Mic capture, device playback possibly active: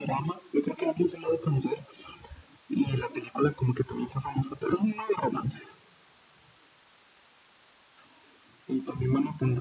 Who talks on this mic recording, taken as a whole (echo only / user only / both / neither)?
echo only